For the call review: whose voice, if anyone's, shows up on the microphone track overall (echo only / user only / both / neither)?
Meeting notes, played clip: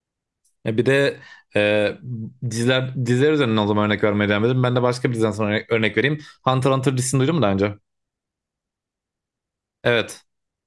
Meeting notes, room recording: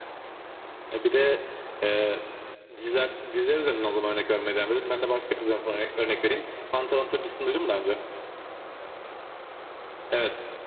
echo only